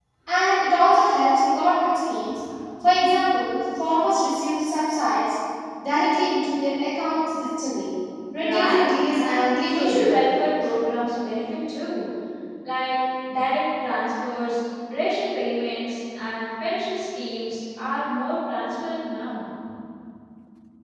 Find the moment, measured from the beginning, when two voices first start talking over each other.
8.4 s

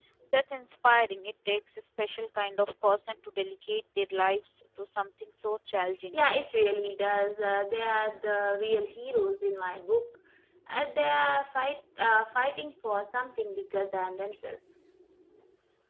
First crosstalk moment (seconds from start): none

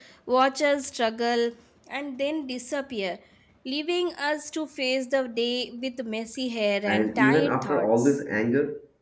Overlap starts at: 6.9 s

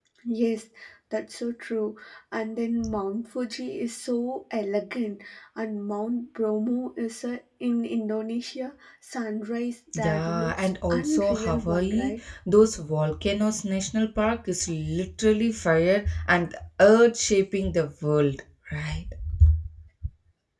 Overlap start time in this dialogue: 9.9 s

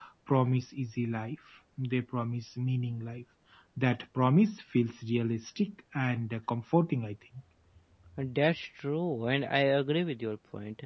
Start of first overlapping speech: none

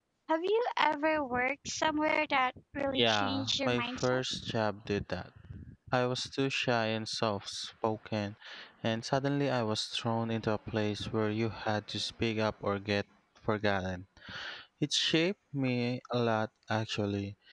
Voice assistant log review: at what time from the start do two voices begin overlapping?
2.9 s

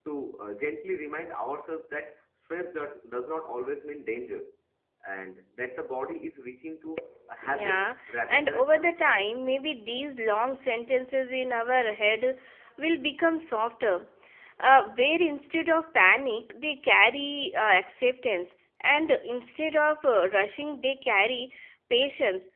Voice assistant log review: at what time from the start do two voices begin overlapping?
7.4 s

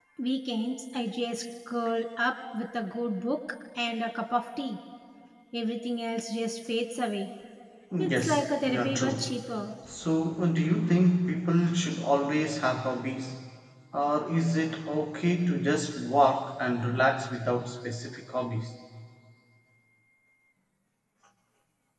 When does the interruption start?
8.0 s

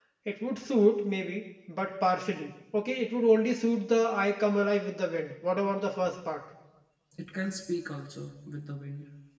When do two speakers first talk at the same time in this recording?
none

